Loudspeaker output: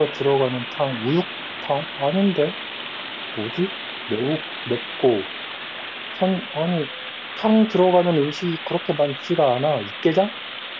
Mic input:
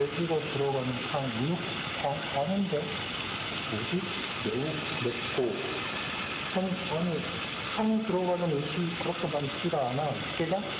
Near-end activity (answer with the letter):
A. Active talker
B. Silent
B